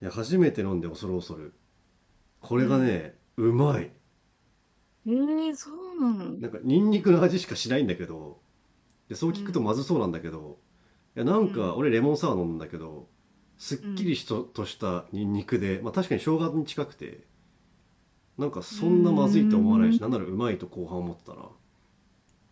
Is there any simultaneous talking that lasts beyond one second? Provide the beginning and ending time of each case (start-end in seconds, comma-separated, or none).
18.7-20.0